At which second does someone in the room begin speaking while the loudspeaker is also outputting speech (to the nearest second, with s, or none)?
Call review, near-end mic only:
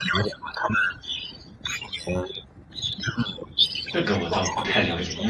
4 s